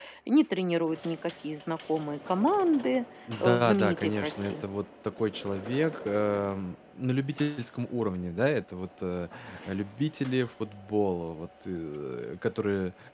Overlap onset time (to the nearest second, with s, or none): 3 s